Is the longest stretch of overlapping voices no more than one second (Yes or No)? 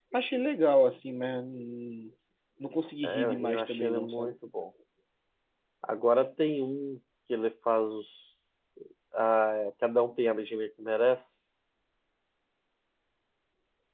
No